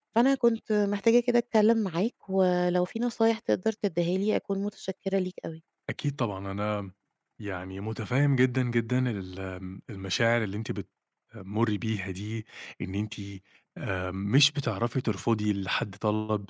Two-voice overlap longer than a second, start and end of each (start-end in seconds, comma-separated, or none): none